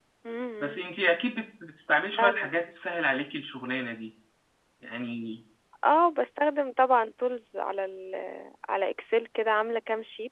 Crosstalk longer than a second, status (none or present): none